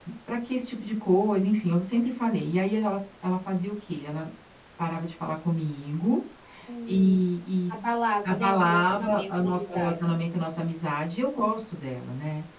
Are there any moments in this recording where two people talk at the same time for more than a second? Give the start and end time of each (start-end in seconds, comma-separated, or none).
8.2-9.9